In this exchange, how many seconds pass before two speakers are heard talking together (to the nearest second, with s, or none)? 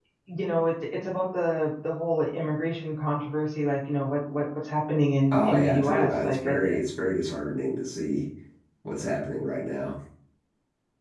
5 s